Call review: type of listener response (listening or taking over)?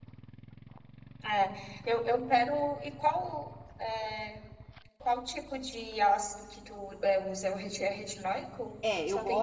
taking over